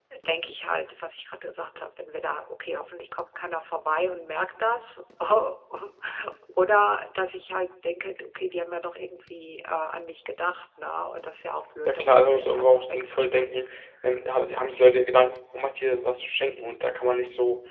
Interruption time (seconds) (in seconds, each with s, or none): 11.8 s